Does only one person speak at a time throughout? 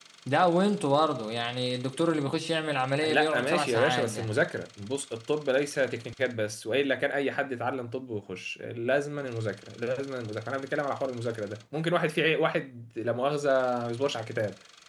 No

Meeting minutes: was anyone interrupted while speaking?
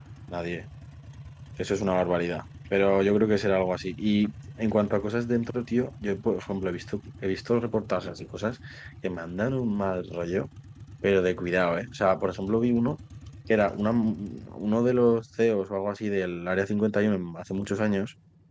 No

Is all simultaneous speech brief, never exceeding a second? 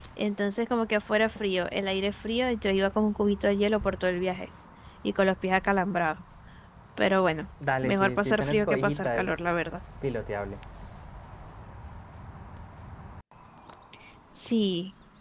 No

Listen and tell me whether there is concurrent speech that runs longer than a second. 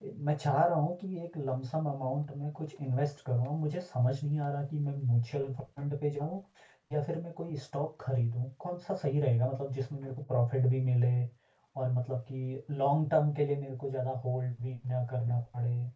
No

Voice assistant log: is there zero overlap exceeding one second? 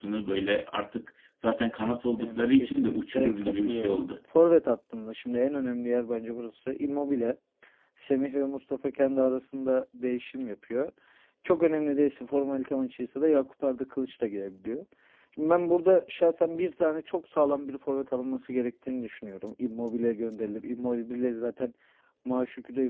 No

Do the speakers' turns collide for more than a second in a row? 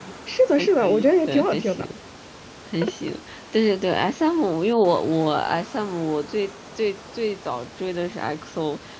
Yes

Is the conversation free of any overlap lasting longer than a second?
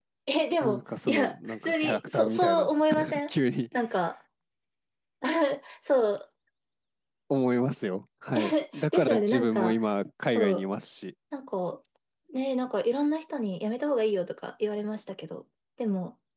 No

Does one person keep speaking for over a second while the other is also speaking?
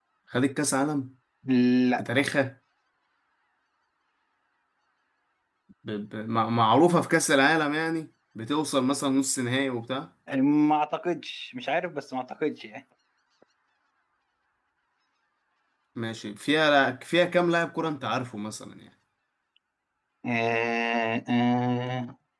No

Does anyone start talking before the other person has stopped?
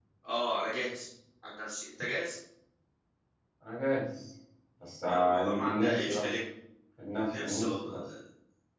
Yes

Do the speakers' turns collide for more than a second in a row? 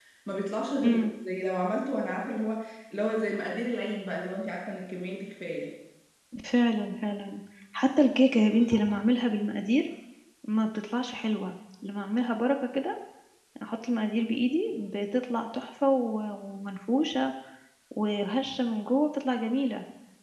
No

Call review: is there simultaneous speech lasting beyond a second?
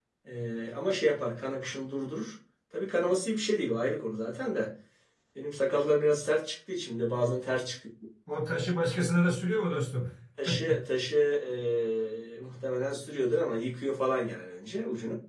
No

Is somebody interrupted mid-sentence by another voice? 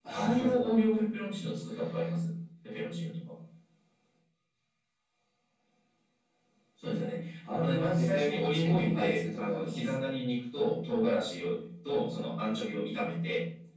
Yes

